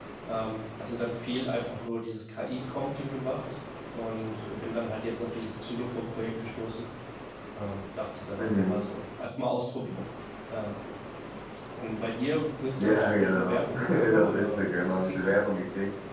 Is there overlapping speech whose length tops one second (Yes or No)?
Yes